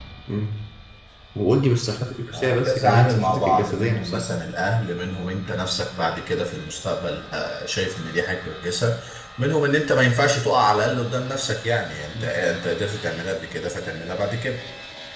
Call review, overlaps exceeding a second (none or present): present